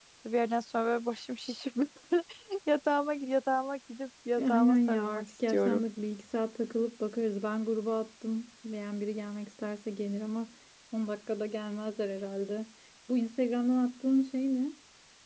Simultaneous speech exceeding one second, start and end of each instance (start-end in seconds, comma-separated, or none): 4.4-5.8